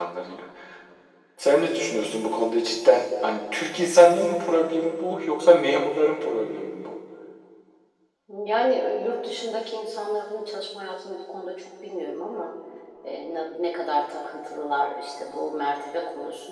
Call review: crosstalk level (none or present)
none